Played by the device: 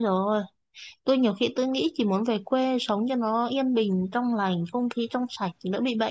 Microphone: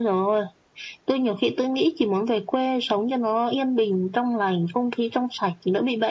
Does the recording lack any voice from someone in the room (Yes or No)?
Yes